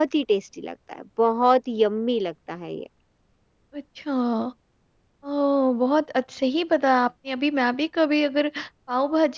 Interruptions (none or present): none